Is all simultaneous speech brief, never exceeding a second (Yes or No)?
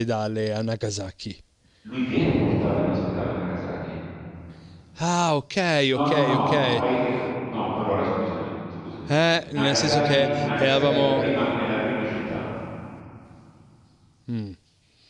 No